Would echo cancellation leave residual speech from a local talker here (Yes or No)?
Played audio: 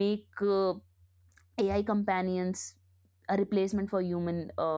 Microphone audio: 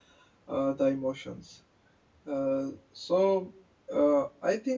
Yes